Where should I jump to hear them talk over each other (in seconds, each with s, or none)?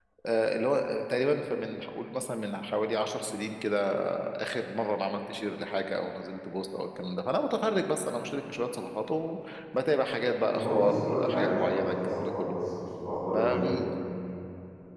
10.5 s